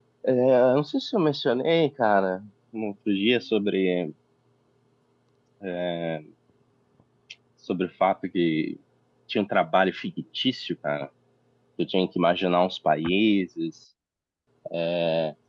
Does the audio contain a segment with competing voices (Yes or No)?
No